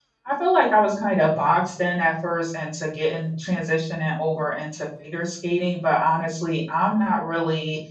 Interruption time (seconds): none

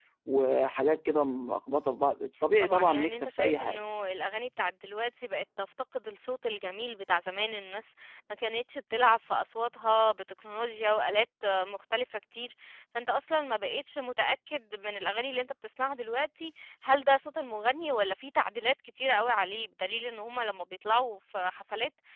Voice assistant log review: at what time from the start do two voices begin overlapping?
3 s

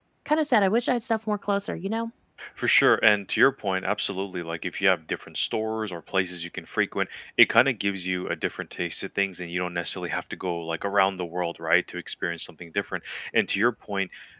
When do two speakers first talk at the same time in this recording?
none

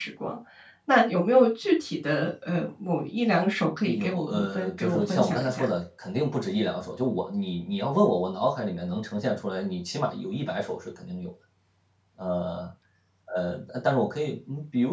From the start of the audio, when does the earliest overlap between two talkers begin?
4 s

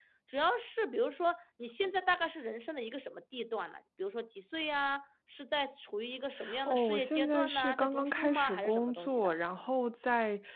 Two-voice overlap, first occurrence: 7 s

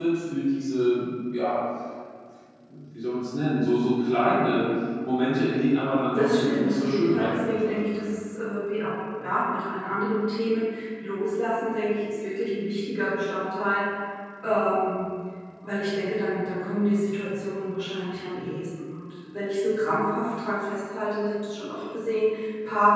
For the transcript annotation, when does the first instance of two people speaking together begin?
6 s

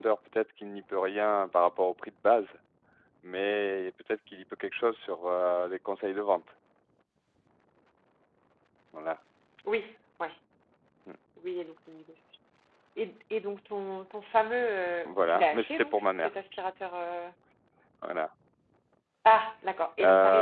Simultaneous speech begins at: 15 s

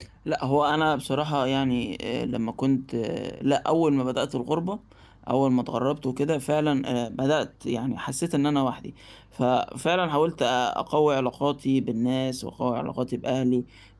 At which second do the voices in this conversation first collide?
none

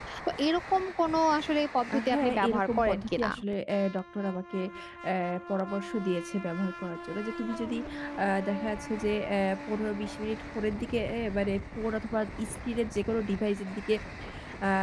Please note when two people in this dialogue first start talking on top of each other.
2 s

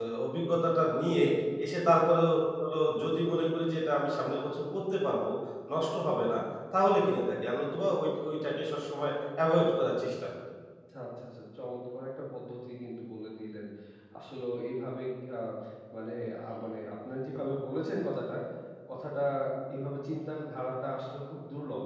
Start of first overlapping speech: none

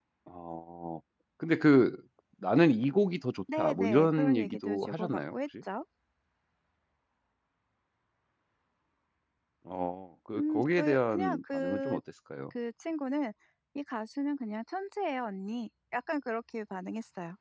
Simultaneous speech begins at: 4 s

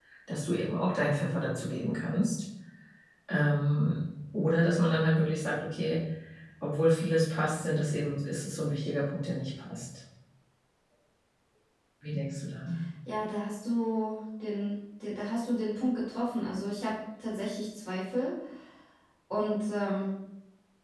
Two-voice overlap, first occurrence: none

